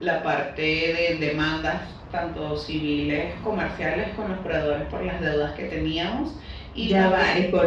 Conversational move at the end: taking over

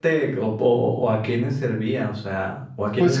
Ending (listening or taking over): taking over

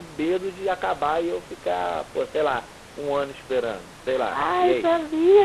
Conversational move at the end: taking over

